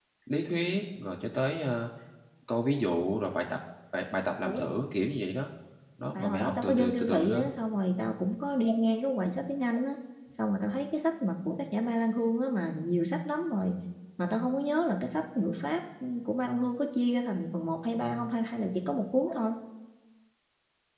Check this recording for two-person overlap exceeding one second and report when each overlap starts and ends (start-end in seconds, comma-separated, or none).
6.2-7.5